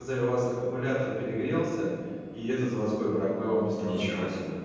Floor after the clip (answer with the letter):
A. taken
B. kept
A